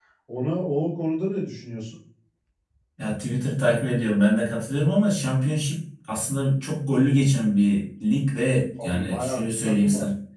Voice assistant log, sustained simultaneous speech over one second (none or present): present